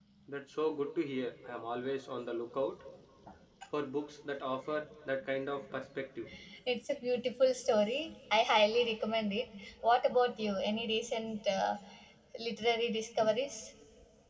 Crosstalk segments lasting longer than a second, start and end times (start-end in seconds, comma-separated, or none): none